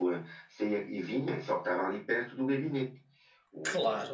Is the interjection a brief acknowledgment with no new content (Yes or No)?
No